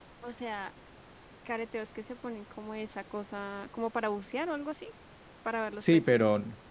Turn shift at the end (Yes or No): Yes